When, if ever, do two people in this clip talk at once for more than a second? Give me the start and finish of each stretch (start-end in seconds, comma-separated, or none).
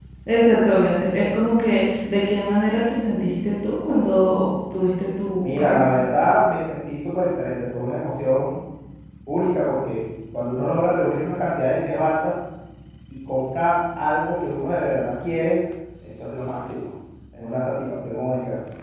none